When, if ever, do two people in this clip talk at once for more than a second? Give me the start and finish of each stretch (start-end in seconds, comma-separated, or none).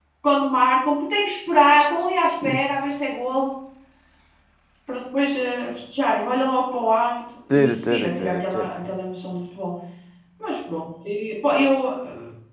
7.5-8.7